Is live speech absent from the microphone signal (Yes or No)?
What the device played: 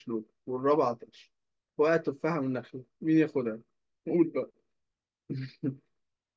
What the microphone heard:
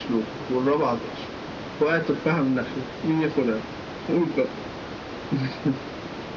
Yes